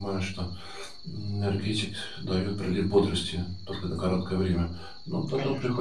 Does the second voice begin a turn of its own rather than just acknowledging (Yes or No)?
No